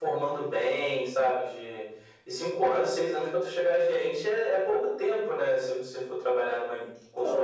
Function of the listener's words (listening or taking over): taking over